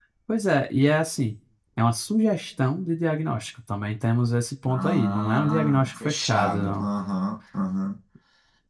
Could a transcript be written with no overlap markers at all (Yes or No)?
No